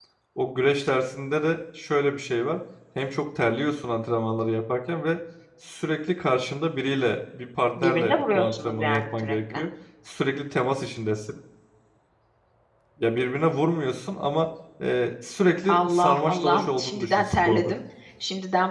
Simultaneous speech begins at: 7.8 s

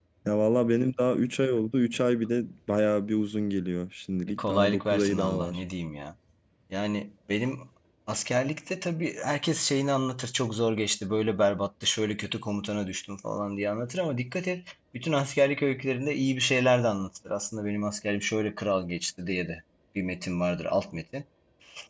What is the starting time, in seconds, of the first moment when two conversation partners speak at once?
4.3 s

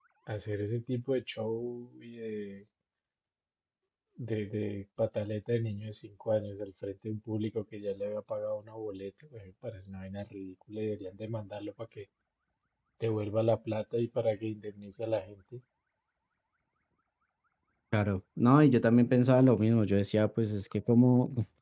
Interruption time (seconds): none

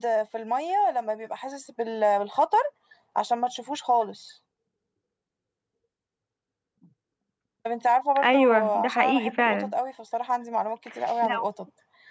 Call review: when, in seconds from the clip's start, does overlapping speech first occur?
8.2 s

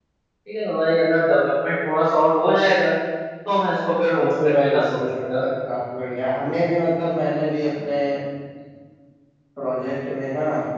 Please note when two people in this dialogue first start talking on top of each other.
4.2 s

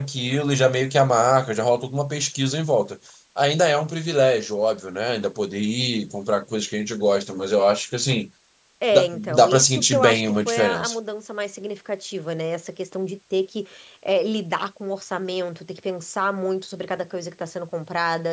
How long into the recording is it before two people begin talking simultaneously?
8.9 s

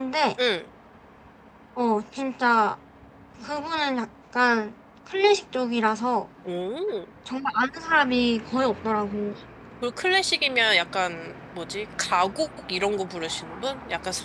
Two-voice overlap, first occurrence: none

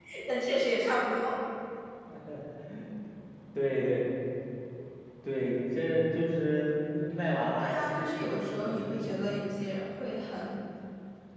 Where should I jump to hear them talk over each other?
7.6 s

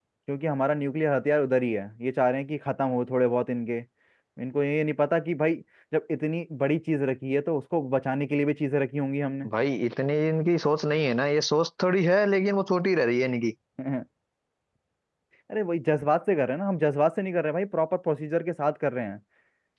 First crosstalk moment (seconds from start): none

